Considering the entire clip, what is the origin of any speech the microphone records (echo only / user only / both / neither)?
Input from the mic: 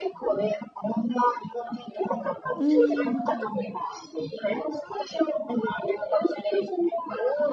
both